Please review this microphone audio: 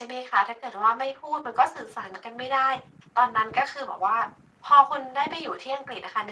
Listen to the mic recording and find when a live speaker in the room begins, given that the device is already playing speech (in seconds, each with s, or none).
none